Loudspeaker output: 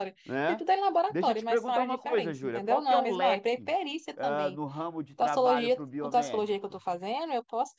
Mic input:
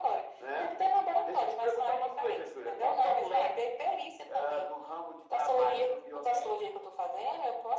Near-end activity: none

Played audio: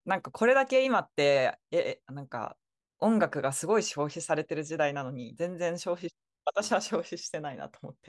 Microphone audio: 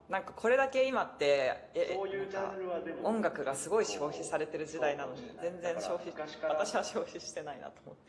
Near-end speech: present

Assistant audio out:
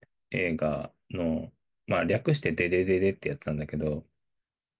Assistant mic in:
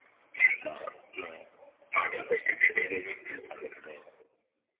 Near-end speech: none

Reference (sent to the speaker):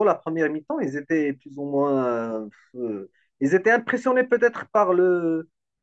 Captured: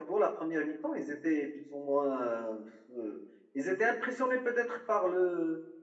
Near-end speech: none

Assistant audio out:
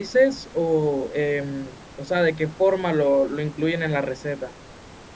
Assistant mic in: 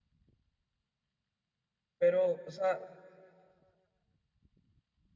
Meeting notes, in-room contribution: present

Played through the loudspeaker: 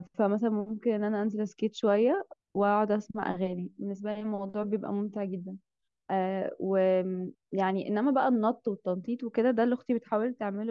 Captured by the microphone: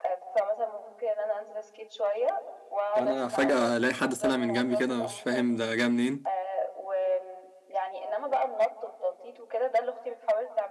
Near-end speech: present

